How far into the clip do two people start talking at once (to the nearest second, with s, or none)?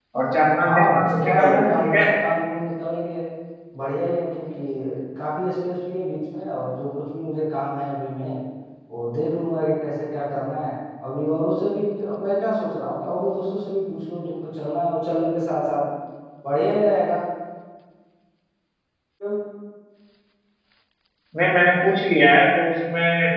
1 s